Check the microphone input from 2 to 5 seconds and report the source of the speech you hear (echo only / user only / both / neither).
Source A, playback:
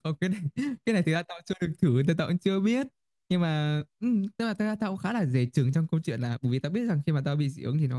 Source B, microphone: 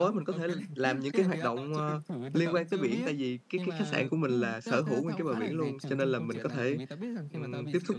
both